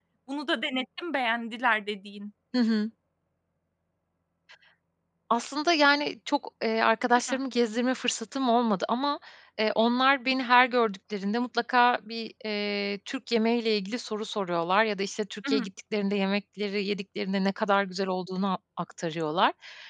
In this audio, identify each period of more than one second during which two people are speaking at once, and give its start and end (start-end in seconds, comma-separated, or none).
none